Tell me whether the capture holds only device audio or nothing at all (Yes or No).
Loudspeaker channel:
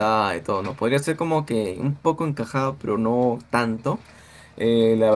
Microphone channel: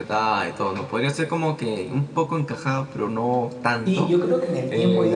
No